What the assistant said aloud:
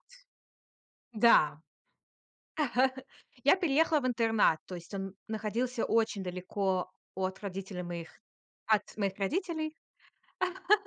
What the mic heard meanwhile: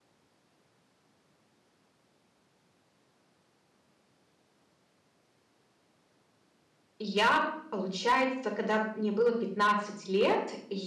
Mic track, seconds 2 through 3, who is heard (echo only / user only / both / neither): neither